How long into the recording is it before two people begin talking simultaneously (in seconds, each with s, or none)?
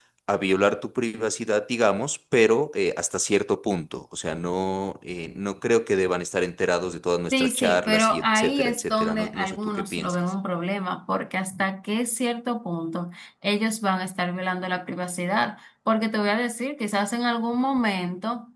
7.3 s